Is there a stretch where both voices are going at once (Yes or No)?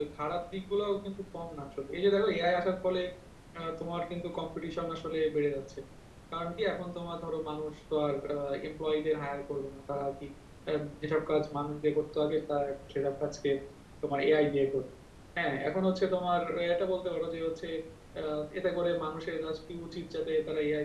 No